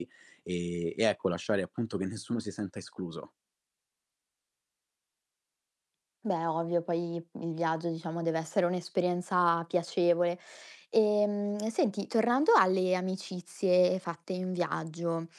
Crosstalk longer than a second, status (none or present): none